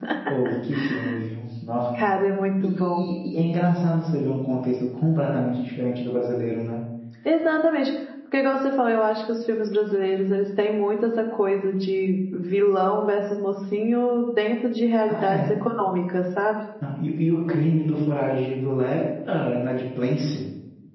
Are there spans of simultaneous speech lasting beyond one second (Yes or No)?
No